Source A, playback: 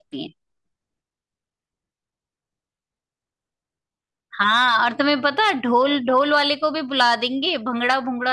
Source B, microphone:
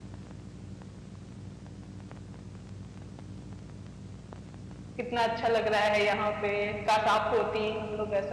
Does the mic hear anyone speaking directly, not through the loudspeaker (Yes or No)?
Yes